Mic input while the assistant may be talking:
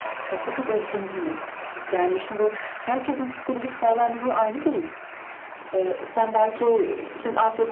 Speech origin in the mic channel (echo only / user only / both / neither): echo only